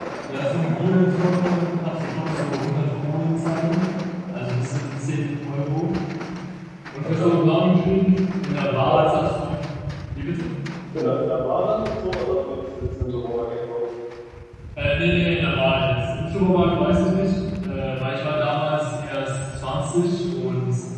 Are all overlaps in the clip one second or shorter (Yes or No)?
Yes